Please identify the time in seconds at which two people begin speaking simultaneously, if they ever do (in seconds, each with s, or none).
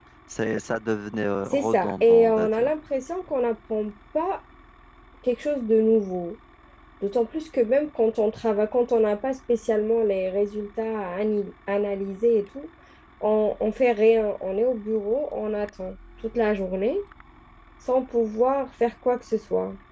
1.5 s